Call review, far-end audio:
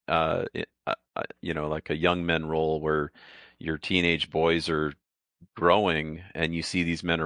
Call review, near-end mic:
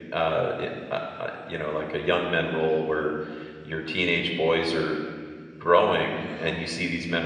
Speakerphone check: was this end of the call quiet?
No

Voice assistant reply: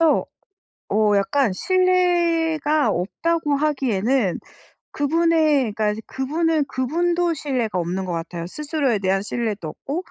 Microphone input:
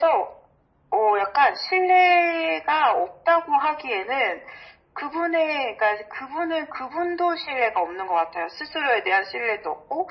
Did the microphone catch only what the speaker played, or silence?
Yes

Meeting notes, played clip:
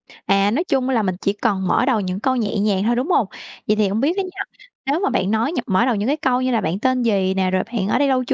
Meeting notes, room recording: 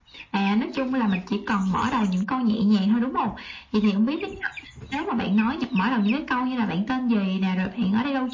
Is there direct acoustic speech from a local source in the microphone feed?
No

